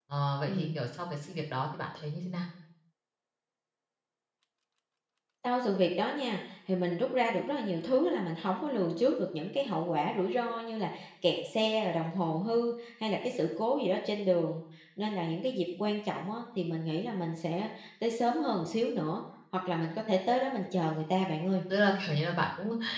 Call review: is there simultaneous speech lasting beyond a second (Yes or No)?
No